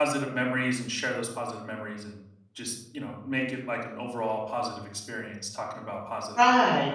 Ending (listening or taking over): taking over